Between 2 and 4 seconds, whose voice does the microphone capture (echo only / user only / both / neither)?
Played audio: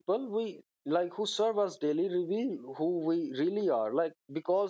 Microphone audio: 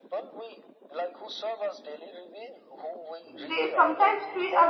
both